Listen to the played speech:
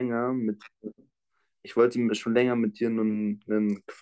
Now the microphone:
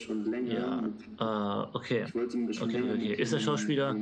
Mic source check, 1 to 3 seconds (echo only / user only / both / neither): both